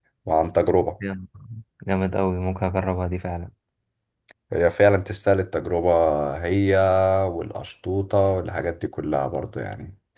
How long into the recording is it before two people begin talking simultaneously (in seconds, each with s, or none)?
none